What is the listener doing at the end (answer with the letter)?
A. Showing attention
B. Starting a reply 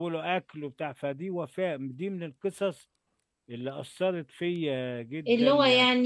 B